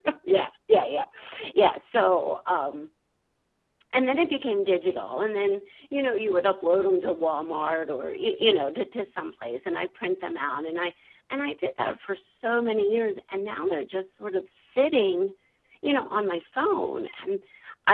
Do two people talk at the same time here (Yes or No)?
No